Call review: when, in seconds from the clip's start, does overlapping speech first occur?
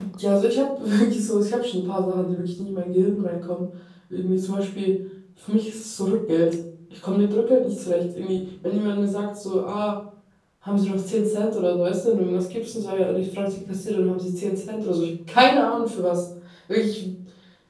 none

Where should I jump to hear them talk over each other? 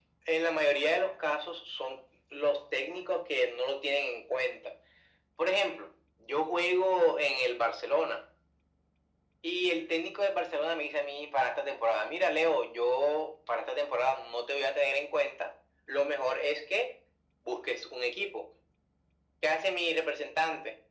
none

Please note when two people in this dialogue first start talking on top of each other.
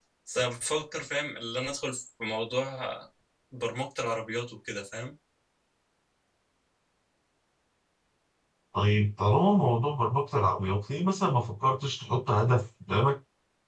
none

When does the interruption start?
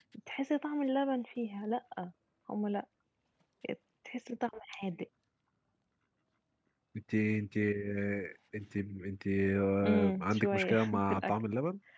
9.8 s

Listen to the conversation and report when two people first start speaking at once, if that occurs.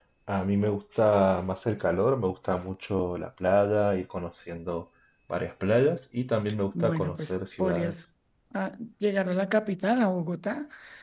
6.7 s

